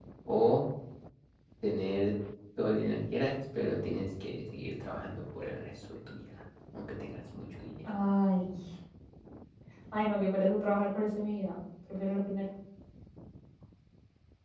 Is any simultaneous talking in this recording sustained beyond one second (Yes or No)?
No